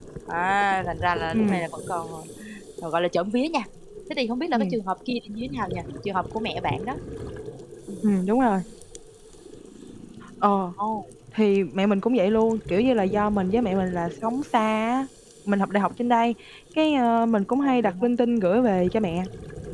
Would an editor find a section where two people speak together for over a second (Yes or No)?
No